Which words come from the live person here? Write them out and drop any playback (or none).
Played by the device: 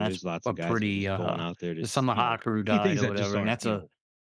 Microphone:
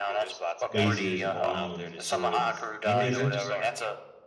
lasers and bombs and swords and stuff. You know what I mean?